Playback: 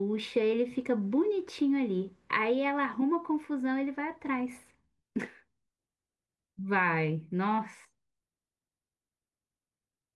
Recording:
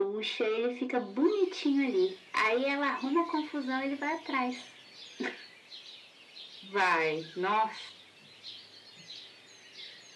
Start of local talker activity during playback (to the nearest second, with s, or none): none